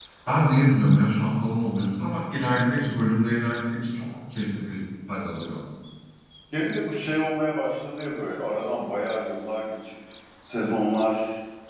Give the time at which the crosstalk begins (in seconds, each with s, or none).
none